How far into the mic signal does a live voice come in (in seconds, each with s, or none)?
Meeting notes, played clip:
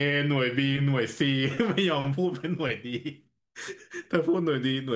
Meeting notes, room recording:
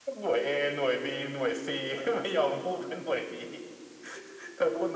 none